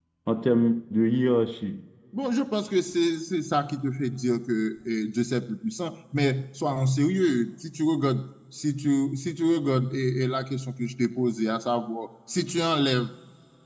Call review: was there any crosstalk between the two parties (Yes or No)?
No